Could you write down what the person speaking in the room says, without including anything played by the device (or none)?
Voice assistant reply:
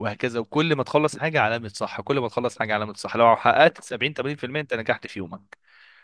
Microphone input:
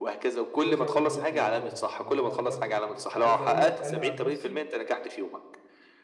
كنت لسه عايز اكلمك في الموضوع ده يعني انا بجد كنت لسه عايز اقول لك انا عن نفسي